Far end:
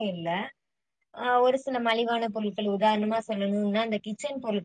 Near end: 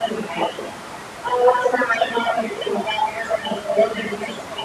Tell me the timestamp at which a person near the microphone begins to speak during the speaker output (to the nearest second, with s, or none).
none